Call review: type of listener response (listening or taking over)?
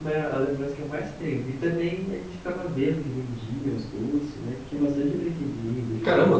taking over